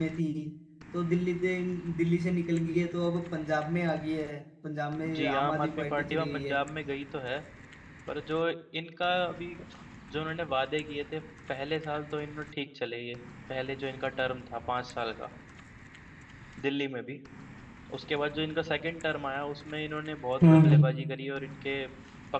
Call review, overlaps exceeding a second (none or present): present